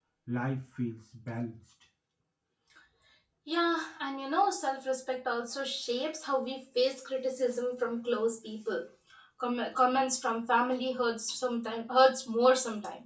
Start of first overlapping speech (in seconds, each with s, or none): none